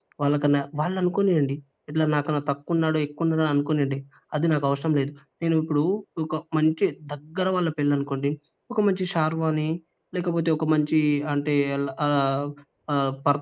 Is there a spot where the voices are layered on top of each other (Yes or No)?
No